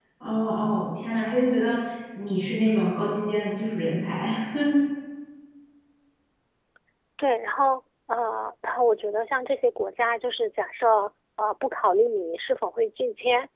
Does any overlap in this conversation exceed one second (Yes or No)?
No